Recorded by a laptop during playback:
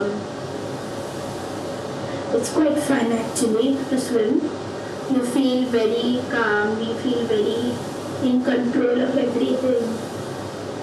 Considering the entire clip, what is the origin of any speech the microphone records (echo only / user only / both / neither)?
echo only